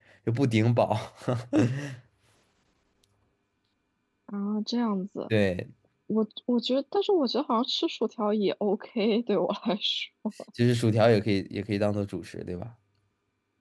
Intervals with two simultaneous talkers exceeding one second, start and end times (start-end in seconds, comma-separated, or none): none